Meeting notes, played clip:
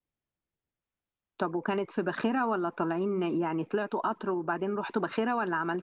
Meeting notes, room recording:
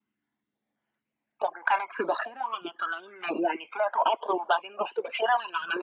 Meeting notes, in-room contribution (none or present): none